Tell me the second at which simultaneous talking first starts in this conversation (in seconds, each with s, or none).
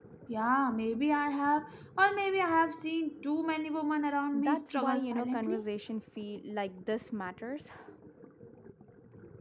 4.3 s